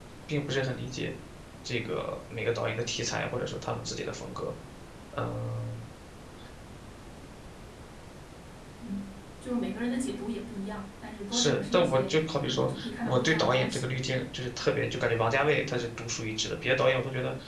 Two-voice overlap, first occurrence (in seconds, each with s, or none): 11.3 s